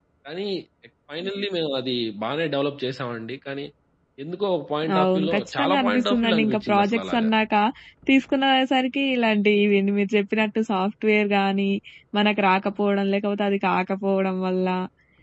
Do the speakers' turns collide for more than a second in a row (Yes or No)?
Yes